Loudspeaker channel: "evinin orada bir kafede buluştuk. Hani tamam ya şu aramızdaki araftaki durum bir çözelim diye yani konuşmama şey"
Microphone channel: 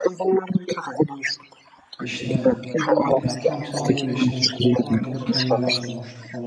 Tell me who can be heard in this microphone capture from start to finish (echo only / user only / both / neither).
both